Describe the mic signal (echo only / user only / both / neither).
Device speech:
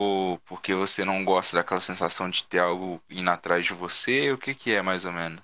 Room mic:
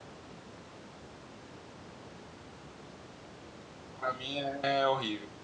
user only